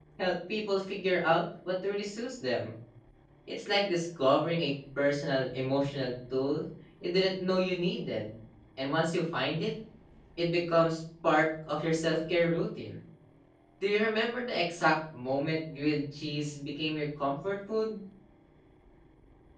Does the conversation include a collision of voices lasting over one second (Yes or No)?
No